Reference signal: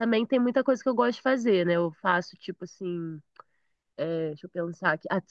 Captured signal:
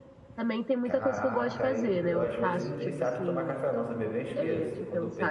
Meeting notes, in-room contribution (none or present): present